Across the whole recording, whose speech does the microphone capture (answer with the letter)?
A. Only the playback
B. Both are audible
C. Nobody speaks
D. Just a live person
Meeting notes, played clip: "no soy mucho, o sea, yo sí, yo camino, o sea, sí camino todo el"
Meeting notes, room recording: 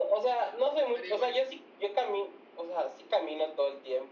B